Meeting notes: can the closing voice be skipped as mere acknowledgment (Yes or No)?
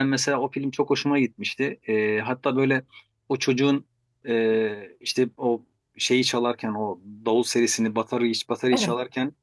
Yes